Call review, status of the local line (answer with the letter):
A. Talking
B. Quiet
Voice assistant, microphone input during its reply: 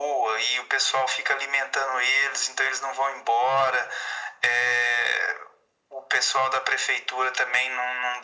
B